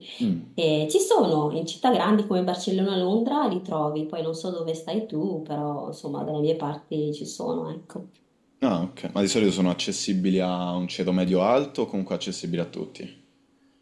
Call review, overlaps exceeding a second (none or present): none